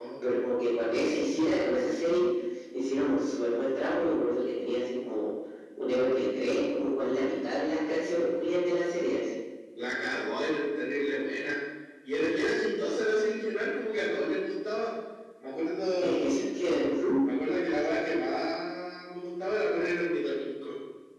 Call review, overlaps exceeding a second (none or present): none